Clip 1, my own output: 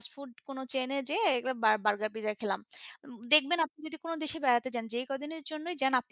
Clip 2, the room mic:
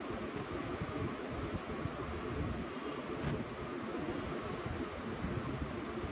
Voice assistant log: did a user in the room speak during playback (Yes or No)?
No